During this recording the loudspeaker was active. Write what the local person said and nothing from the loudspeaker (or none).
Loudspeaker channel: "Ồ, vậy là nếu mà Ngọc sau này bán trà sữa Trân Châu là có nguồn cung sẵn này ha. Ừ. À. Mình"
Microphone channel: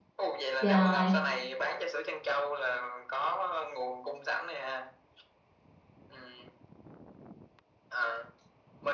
trời